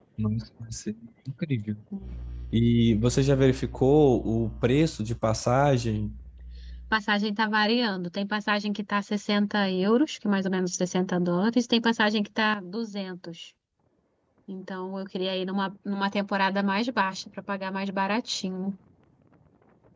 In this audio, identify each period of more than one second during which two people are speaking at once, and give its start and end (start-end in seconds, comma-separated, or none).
none